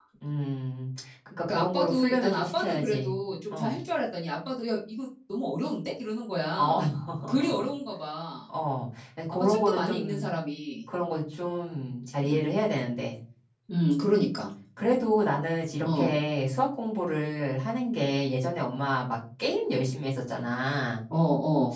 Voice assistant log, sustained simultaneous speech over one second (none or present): present